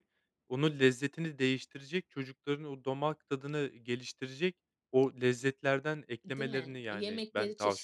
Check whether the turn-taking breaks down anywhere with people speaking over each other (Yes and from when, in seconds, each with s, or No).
Yes, from 6.2 s